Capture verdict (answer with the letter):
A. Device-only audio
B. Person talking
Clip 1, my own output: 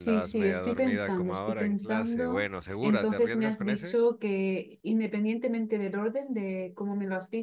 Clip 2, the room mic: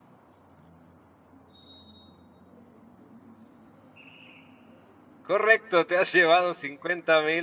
B